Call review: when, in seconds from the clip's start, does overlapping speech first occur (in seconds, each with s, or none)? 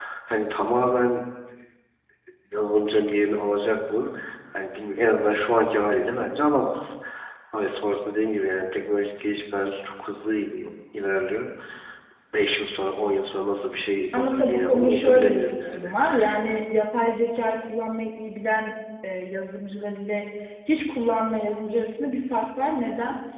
14.1 s